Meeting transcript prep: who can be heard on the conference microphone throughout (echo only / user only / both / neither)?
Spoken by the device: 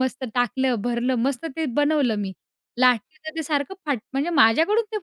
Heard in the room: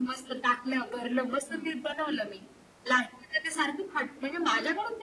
both